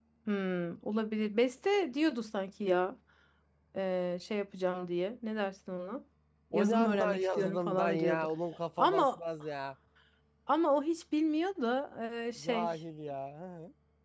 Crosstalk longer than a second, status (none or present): present